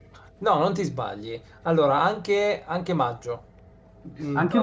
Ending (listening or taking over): listening